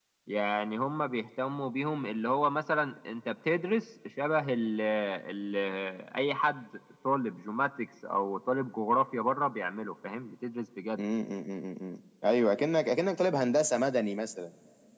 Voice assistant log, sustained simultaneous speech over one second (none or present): none